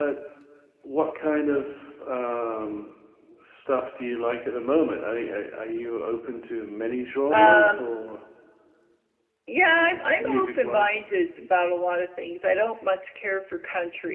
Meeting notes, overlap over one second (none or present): present